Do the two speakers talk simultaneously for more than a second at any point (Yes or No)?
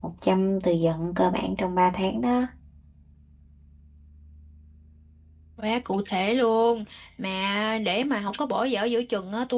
No